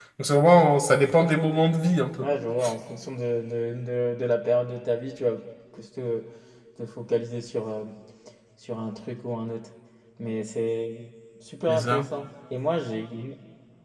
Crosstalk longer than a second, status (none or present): none